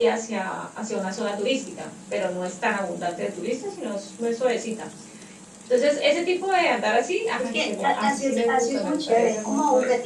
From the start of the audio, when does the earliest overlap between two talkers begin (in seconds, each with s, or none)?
7.4 s